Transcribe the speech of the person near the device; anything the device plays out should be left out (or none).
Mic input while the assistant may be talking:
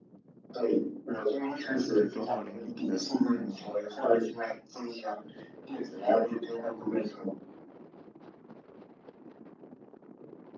呃，最多到零零的